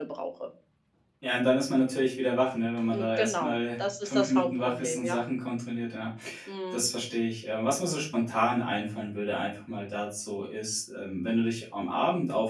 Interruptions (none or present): present